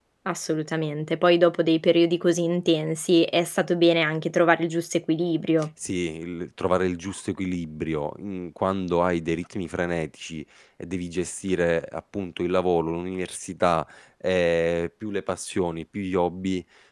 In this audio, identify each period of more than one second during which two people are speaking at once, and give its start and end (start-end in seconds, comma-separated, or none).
none